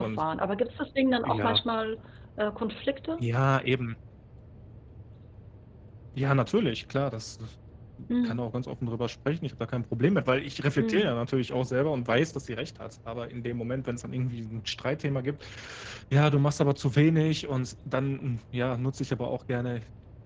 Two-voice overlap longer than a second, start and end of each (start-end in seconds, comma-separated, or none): none